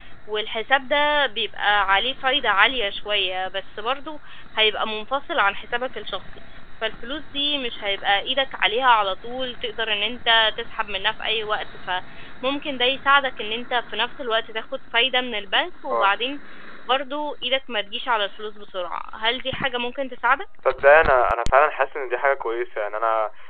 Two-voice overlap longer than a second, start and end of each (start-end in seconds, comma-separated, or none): none